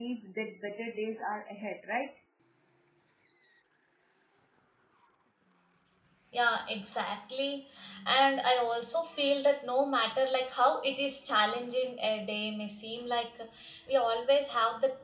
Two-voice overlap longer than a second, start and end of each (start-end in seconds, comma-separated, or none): none